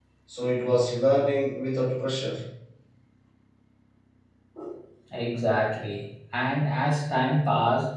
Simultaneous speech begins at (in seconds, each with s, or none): none